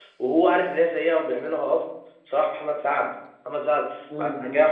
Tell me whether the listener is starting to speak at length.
No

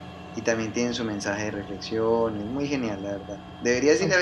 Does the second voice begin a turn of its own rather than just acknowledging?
No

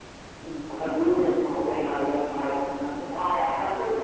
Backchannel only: No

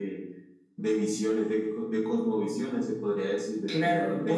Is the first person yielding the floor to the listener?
Yes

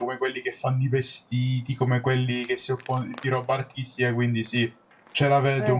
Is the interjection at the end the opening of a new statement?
Yes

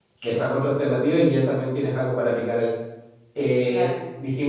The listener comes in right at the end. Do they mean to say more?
No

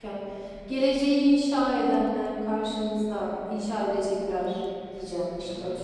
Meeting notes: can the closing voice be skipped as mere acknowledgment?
No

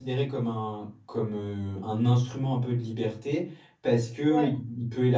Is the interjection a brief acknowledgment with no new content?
Yes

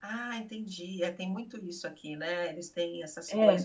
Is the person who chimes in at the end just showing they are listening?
No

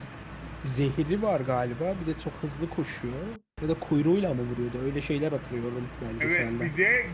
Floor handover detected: Yes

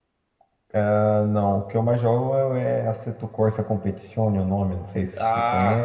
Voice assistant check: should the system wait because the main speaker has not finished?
No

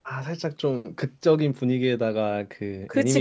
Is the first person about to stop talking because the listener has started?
No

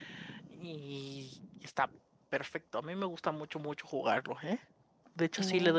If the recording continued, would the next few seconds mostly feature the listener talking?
No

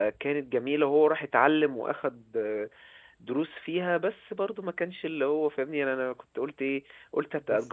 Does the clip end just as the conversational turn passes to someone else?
No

